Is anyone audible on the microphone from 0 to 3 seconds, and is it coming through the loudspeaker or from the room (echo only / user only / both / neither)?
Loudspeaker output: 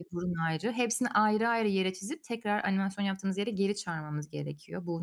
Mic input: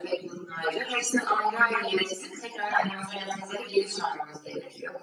echo only